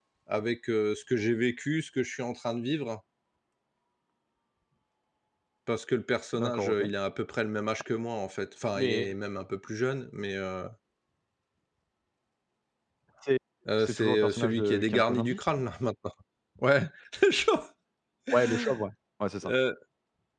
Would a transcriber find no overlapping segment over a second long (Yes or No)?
No